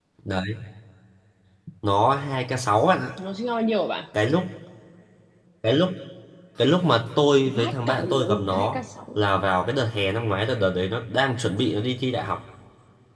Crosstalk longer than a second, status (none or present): present